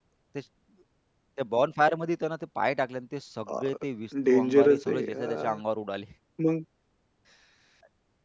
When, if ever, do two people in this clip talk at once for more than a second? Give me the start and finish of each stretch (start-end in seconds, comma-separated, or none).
4.2-5.6